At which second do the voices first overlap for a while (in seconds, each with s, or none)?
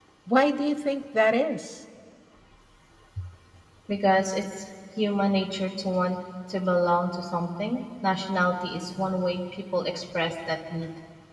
none